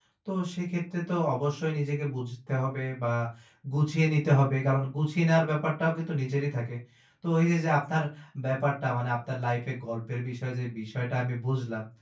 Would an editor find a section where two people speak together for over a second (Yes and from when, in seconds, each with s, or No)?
No